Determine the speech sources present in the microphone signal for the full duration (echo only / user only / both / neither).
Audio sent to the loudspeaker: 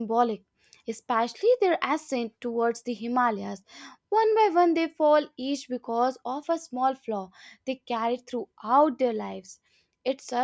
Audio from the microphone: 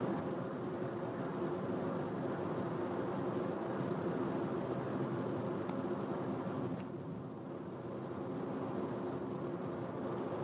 neither